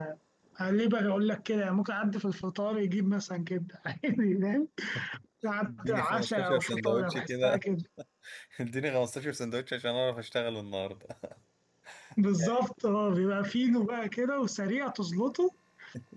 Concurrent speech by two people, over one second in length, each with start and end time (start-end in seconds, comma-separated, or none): 5.7-7.6